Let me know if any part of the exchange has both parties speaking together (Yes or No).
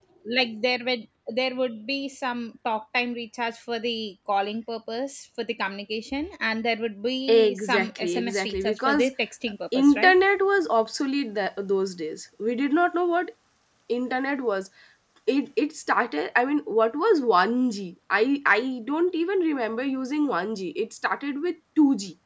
Yes